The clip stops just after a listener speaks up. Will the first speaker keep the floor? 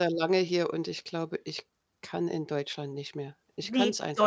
No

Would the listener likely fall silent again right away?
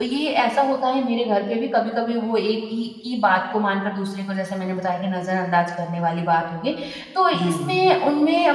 Yes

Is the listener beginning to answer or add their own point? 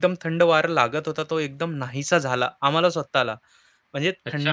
Yes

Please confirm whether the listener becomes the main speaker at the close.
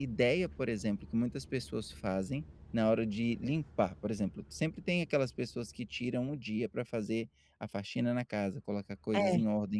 No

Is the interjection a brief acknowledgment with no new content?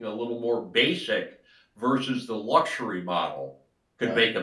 Yes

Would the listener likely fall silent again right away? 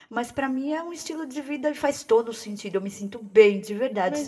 No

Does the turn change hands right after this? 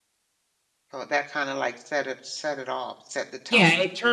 Yes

